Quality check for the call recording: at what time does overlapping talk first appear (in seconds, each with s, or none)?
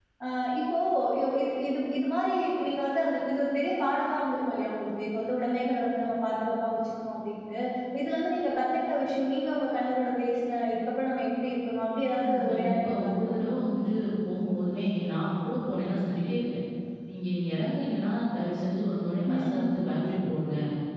12.2 s